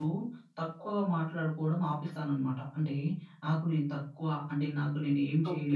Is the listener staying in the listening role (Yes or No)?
No